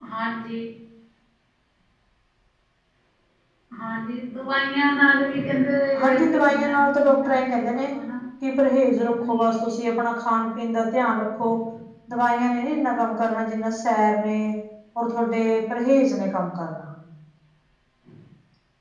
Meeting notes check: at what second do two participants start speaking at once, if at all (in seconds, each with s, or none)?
6.0 s